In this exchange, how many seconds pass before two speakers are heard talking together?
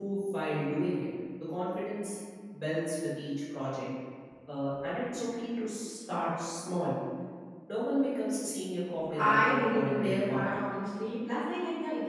9.2 s

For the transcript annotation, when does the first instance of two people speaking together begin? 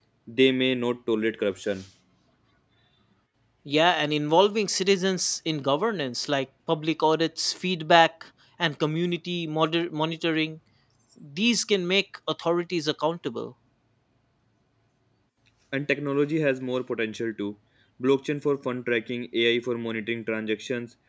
none

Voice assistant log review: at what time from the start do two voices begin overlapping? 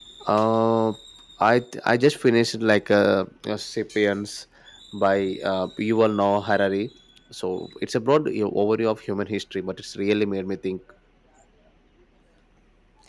none

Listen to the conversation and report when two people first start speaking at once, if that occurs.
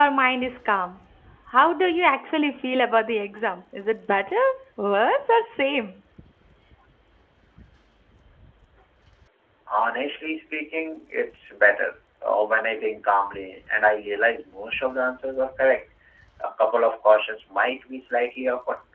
none

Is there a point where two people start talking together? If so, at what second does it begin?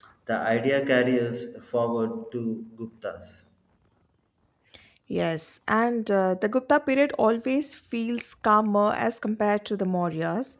none

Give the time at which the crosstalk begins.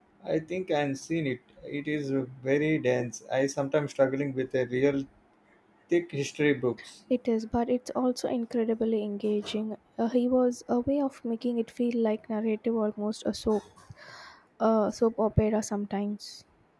none

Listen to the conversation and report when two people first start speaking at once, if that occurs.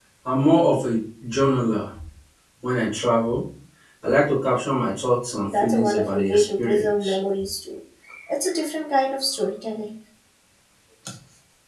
5.5 s

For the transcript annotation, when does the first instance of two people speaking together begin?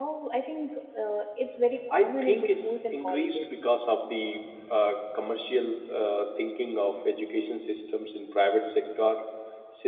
1.9 s

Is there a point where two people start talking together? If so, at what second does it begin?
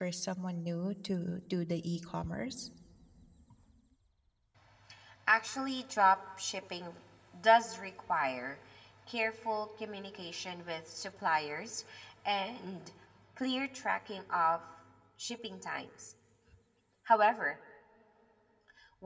none

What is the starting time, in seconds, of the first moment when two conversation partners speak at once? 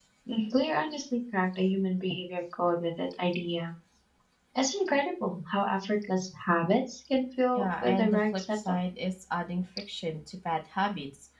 7.6 s

